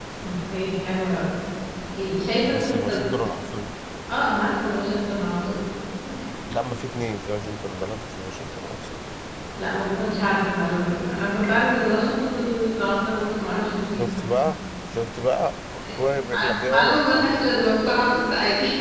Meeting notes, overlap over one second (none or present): present